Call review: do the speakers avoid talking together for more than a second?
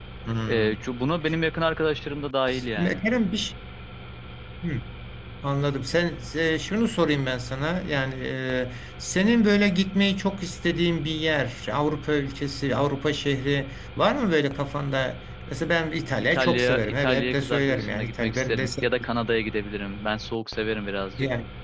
No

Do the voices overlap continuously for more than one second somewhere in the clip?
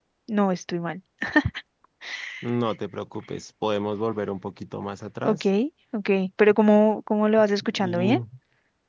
No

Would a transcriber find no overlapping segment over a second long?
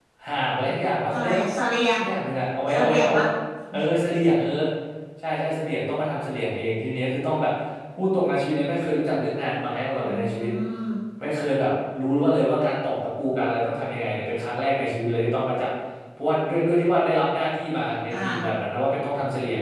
Yes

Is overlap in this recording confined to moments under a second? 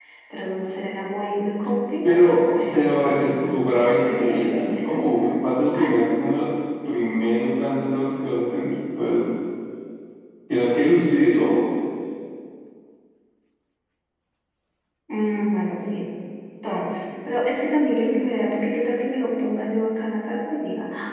No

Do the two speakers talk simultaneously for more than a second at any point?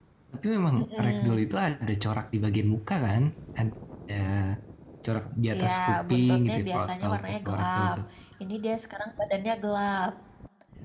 Yes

